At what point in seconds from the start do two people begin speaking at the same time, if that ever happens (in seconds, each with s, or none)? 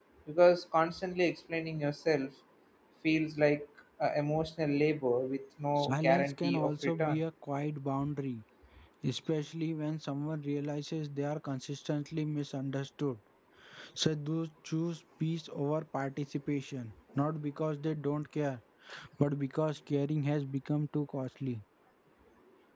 5.8 s